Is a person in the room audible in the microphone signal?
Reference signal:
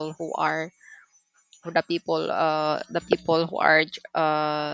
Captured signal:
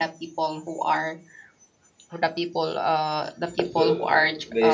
Yes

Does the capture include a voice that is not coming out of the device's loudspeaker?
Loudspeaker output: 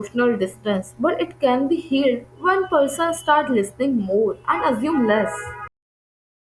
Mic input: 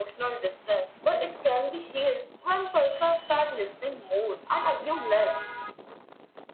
No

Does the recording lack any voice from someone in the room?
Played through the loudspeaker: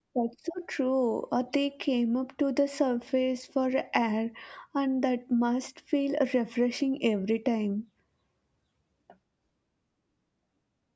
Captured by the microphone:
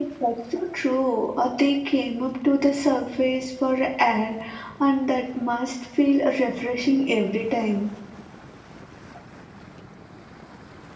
Yes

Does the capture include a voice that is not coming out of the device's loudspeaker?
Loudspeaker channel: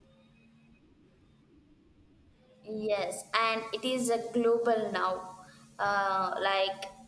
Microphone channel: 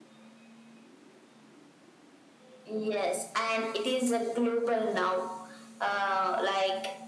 No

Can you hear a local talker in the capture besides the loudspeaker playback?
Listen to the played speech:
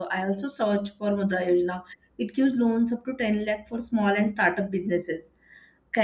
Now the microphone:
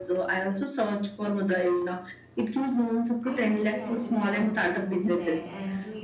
Yes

